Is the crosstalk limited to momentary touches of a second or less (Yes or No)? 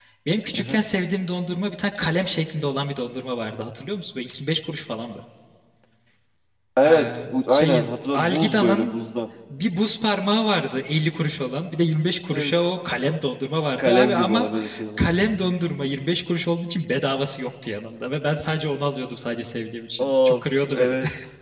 No